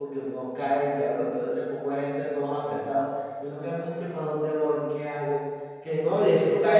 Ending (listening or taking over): taking over